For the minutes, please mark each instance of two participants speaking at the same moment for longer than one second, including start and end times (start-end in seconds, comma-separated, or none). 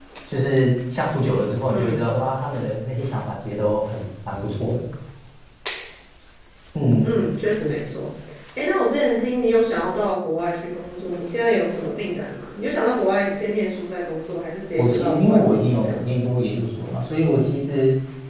14.8-16.1